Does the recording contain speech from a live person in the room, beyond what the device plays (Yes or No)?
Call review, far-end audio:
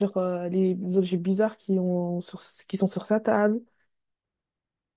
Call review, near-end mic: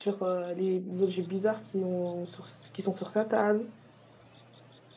No